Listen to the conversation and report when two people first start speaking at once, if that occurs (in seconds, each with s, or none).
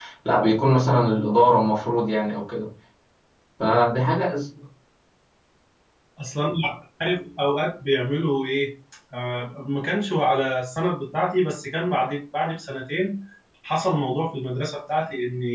none